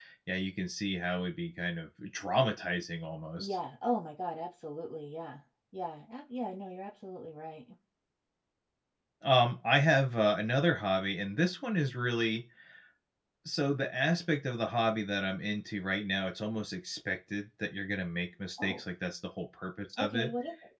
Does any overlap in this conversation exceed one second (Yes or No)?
No